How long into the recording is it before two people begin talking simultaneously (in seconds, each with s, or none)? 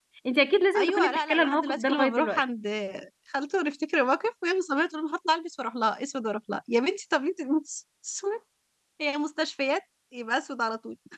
0.8 s